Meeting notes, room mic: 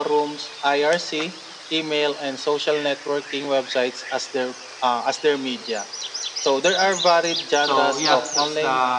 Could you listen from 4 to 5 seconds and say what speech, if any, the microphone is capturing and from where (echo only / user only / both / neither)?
echo only